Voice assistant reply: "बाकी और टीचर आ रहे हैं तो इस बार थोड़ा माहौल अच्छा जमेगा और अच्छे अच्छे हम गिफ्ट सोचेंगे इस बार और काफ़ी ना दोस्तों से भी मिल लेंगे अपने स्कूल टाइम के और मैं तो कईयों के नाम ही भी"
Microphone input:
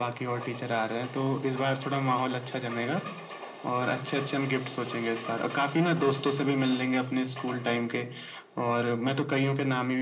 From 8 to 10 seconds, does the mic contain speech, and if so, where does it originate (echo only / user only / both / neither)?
echo only